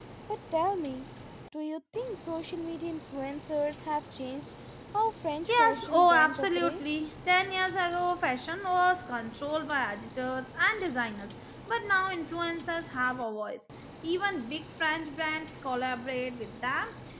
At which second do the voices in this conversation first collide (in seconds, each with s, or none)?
5.5 s